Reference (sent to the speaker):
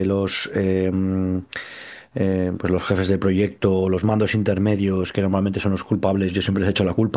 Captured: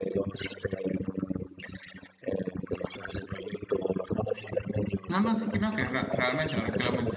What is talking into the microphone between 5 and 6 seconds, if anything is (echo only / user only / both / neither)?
both